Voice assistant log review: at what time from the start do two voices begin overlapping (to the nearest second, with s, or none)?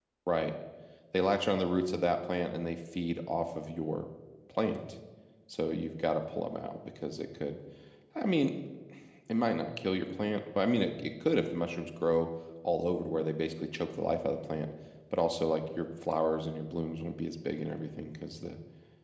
none